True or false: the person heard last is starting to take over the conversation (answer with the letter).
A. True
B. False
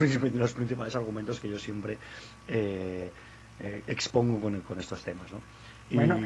A